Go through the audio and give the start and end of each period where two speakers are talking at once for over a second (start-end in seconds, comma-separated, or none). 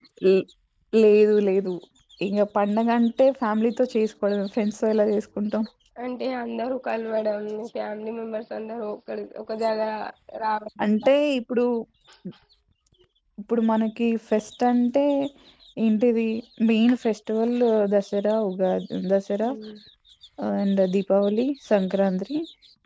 none